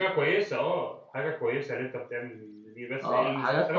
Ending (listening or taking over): taking over